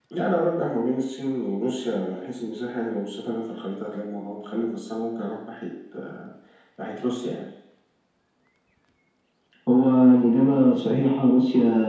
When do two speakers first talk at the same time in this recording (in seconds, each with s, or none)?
none